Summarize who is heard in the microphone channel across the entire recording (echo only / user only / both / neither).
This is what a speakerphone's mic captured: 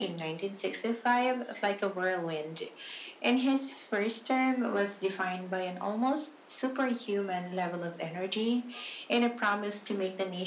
echo only